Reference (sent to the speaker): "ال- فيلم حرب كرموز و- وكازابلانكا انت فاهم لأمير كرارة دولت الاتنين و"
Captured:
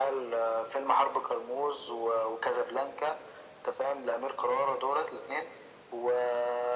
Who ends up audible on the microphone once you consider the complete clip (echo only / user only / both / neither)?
echo only